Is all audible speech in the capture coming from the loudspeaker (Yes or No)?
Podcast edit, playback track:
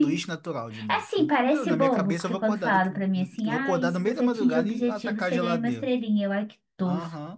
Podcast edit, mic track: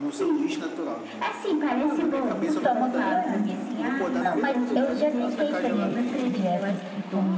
No